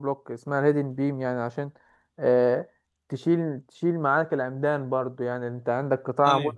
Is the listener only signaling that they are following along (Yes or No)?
Yes